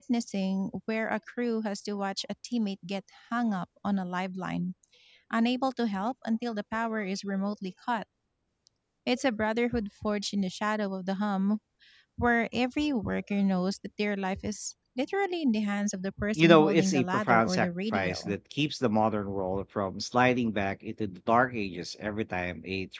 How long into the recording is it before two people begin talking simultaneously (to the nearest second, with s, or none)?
16 s